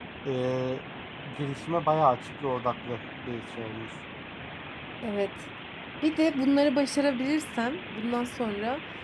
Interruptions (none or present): none